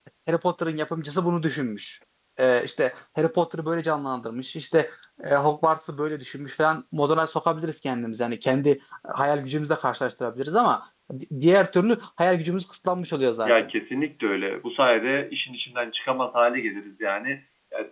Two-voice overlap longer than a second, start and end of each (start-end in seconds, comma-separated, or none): none